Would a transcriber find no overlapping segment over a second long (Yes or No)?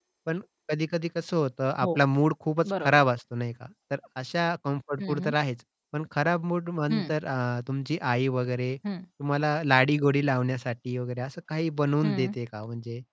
Yes